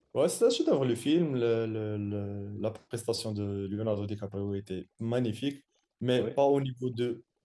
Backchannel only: Yes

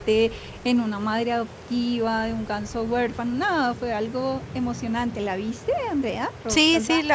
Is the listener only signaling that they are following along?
No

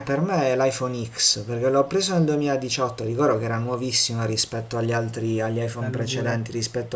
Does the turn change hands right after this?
No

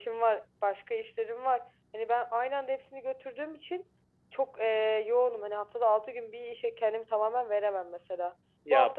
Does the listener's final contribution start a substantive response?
No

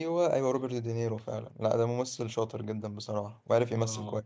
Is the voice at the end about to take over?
Yes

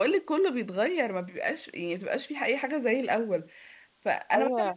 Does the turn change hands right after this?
No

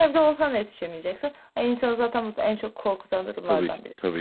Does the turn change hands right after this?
Yes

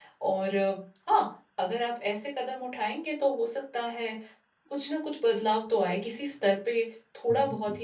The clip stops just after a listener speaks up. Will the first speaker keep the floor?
Yes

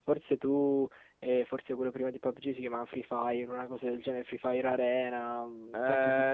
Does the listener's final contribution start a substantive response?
Yes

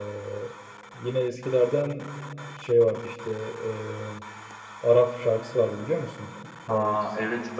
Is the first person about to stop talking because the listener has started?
Yes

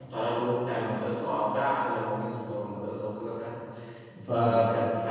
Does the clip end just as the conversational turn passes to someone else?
No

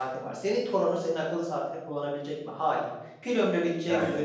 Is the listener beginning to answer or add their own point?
No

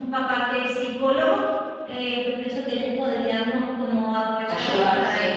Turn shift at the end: No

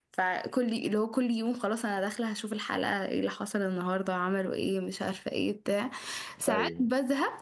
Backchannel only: Yes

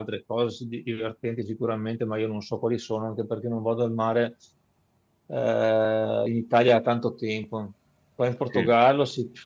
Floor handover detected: No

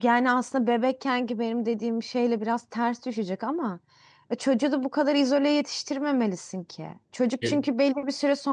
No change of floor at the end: Yes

